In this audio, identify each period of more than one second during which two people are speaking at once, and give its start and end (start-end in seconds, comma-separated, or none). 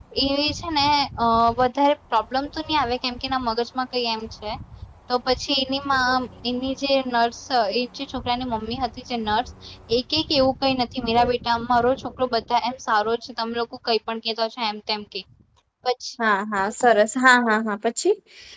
none